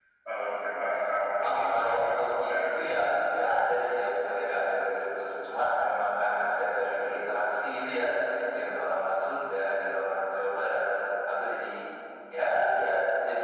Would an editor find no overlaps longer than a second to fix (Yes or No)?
No